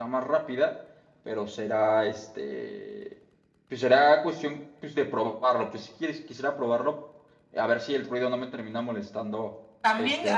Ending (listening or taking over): taking over